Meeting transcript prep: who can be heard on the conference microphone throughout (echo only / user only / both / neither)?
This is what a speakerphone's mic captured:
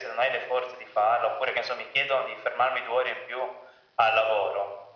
echo only